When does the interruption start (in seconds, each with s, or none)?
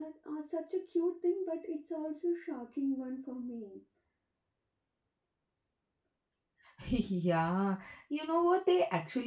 none